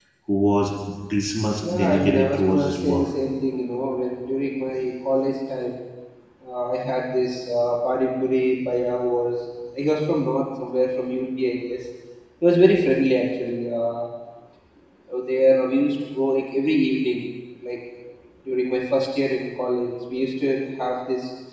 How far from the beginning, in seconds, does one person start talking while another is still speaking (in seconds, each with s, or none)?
1.7 s